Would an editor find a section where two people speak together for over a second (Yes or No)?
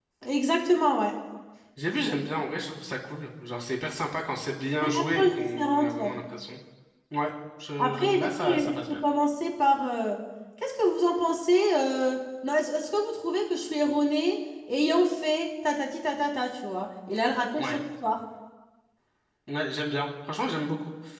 Yes